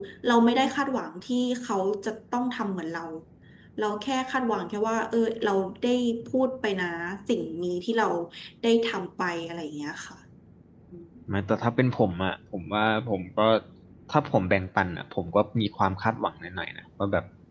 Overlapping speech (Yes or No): No